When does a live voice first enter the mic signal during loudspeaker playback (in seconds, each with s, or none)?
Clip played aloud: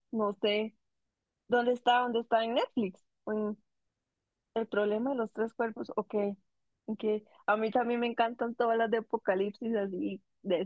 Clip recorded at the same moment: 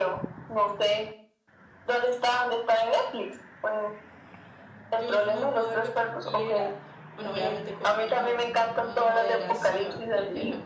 5.0 s